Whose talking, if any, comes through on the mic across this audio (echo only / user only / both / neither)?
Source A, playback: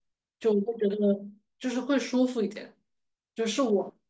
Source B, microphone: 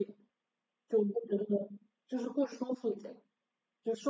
echo only